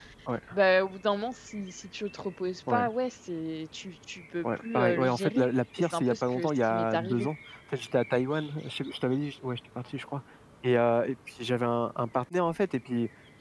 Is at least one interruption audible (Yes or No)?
Yes